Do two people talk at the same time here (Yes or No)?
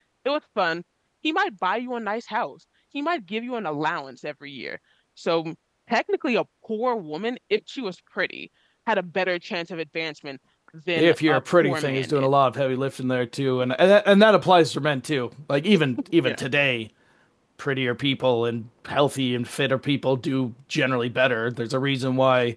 Yes